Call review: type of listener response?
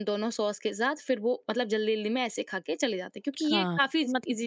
taking over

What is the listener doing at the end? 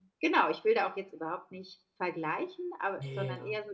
listening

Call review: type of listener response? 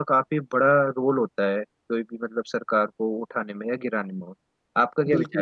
taking over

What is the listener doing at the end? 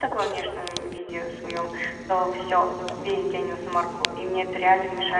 listening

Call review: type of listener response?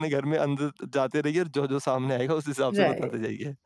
taking over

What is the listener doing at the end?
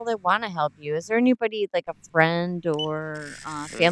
taking over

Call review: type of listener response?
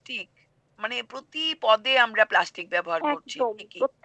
taking over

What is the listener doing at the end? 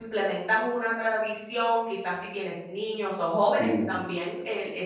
listening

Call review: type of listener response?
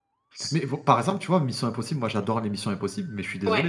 listening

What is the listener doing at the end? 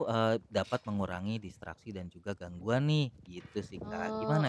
taking over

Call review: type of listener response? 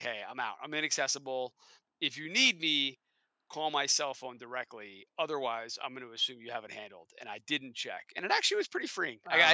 listening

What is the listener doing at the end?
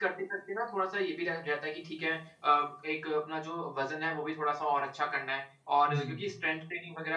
listening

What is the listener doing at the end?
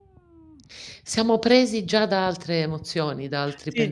taking over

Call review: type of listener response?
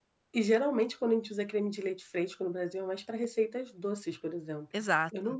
listening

